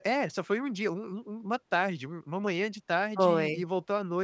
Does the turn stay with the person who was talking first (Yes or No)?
Yes